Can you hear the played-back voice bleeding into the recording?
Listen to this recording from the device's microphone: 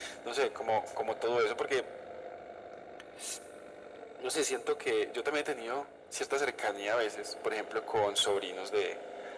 Yes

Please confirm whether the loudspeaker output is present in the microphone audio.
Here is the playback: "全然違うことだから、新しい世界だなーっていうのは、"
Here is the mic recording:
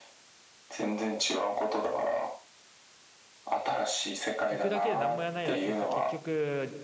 Yes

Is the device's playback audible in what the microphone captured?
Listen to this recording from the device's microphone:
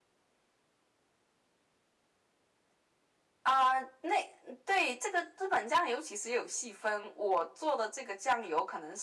Yes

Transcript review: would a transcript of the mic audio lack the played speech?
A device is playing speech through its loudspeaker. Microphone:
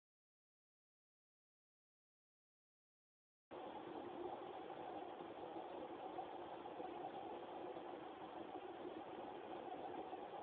Yes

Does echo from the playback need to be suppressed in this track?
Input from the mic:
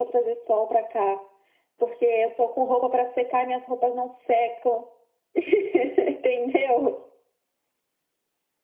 Yes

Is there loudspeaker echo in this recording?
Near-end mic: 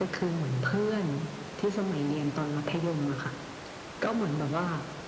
Yes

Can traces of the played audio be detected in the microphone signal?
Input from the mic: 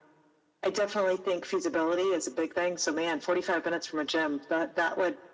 Yes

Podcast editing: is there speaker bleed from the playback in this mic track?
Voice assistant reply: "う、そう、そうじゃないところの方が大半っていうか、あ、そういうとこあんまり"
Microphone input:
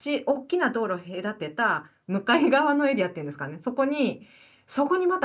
No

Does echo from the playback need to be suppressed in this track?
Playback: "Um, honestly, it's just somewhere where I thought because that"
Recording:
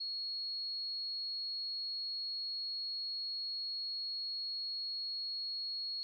No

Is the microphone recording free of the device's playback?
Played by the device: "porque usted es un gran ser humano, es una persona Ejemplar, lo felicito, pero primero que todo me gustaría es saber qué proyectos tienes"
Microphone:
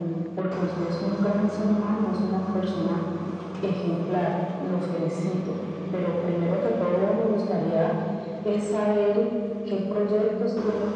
No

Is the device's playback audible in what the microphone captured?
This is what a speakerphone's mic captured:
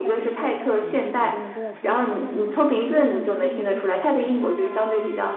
Yes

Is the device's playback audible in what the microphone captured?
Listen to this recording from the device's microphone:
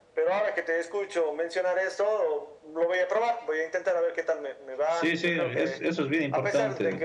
Yes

